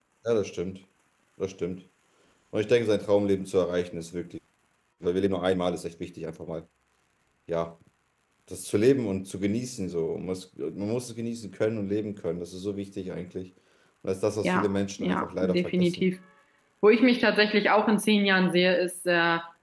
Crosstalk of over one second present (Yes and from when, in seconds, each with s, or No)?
Yes, from 14.4 s